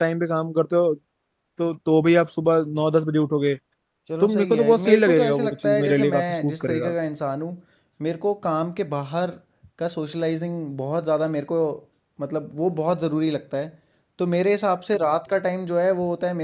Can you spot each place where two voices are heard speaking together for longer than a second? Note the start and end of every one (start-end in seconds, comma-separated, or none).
4.2-6.9